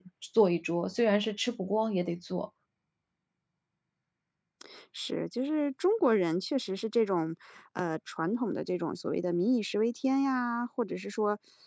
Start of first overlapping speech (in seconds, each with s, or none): none